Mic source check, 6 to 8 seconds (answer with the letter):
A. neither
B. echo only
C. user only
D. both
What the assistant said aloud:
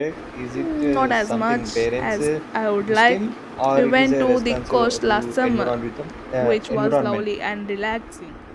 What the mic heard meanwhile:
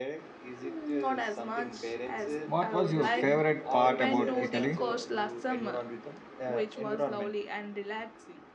B